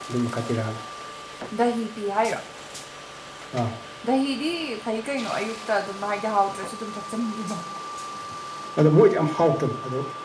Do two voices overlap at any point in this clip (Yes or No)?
No